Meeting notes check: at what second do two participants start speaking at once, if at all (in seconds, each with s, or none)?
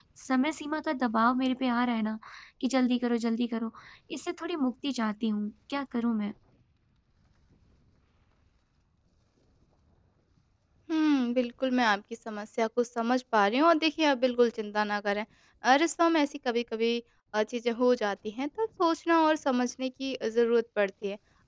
none